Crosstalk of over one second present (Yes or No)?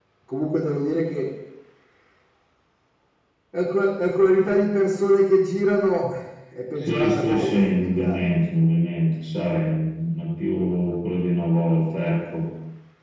Yes